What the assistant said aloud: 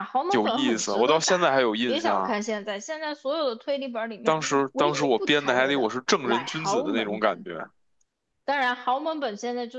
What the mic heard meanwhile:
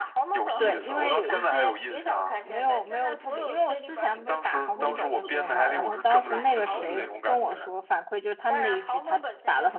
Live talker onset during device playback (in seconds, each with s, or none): 0.6 s